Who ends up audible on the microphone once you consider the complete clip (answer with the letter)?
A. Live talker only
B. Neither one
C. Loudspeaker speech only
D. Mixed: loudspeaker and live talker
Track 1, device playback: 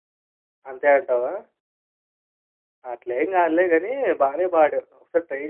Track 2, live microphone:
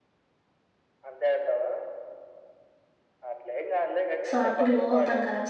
D